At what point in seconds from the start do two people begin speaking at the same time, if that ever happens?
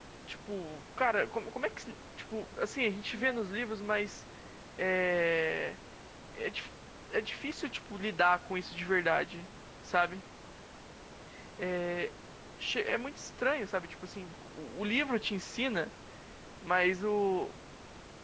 none

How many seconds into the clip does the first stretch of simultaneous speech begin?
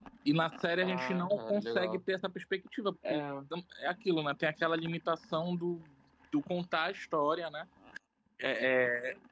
0.8 s

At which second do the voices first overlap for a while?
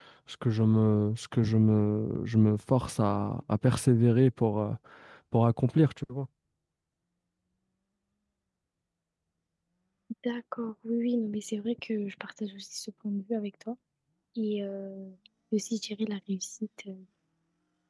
none

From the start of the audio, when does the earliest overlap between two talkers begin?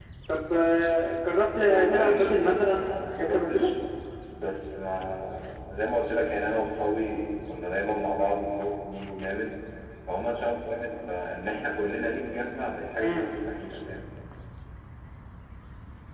1.9 s

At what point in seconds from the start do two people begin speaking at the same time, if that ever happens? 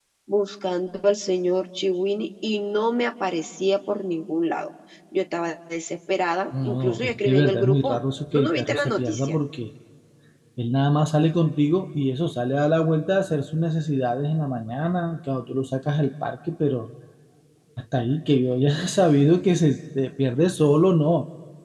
6.5 s

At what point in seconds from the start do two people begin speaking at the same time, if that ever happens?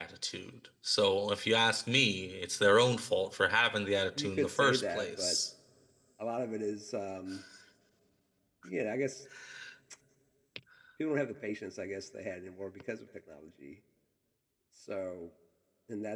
4.2 s

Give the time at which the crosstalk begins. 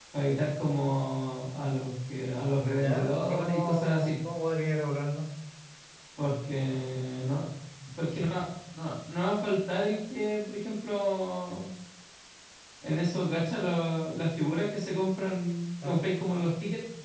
2.8 s

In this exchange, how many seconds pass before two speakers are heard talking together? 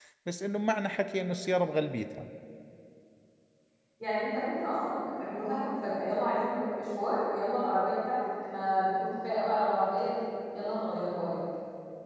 none

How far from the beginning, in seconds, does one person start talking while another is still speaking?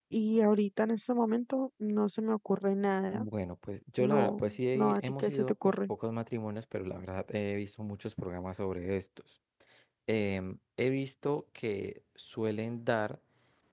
4.0 s

